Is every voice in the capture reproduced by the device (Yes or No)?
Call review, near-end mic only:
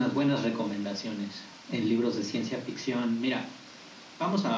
Yes